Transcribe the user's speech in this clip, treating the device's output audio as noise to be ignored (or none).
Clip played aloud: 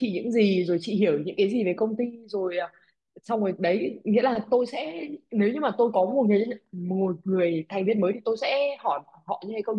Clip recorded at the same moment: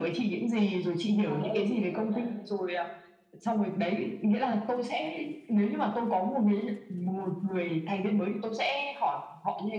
và đây để tôi kể cho bạn nghe